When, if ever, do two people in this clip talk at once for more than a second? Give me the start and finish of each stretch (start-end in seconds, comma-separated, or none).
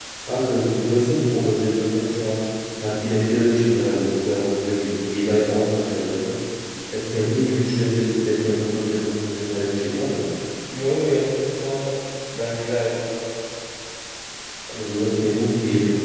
none